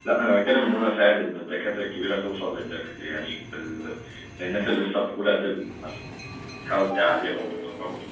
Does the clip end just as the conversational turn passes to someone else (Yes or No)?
No